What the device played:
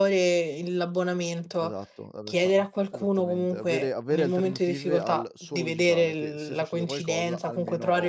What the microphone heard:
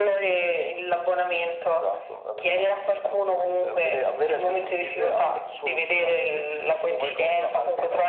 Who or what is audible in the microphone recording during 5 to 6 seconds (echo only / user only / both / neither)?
echo only